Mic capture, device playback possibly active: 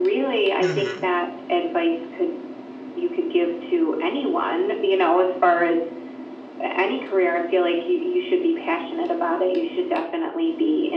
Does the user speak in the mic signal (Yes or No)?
Yes